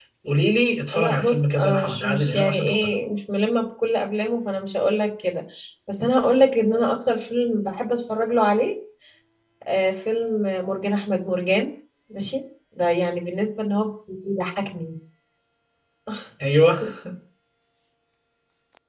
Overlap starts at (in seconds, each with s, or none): 0.9 s